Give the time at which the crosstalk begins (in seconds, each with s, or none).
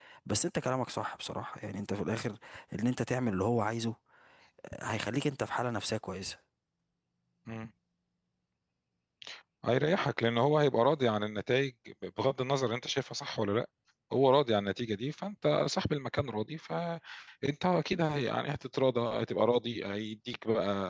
none